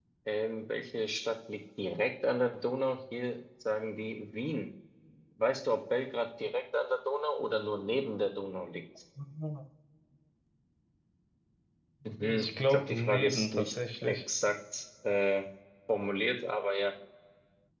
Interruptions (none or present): present